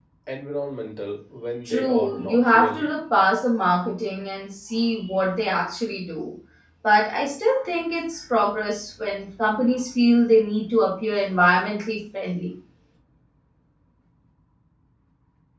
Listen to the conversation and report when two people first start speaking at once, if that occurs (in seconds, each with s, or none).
1.7 s